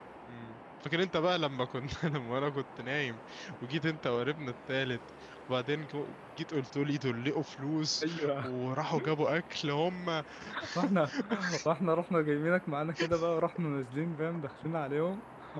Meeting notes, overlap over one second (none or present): none